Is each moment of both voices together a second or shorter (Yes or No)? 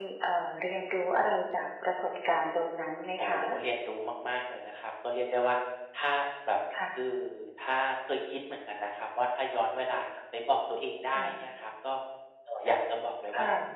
Yes